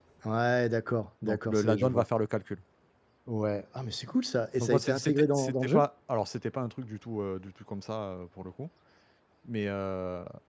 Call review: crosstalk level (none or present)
present